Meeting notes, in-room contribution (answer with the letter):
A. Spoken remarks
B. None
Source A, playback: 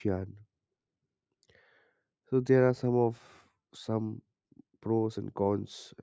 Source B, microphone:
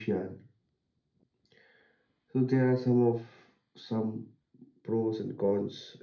B